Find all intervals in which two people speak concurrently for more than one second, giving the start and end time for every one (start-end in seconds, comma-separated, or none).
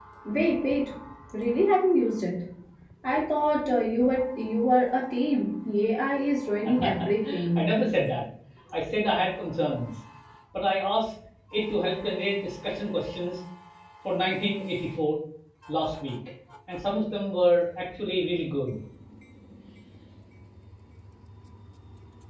none